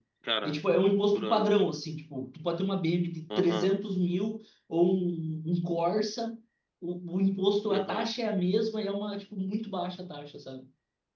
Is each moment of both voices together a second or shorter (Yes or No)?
Yes